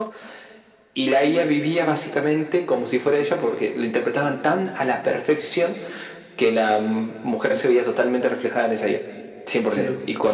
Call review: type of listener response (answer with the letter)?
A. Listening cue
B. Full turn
A